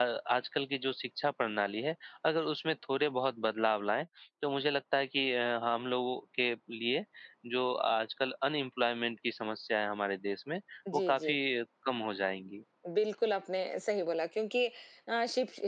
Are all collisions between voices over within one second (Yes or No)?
Yes